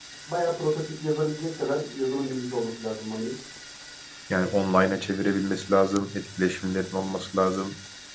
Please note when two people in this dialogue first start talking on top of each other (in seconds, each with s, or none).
none